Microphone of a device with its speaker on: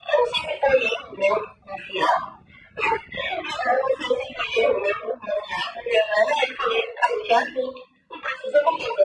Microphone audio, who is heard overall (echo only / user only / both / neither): echo only